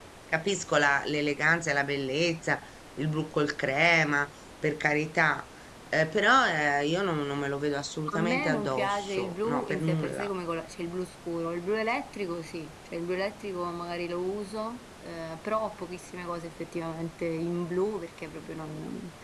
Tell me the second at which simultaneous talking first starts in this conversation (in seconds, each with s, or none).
8.1 s